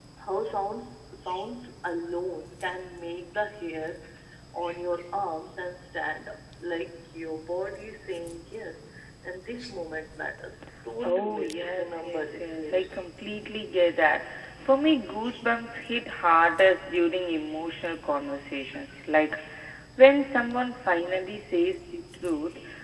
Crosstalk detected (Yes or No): Yes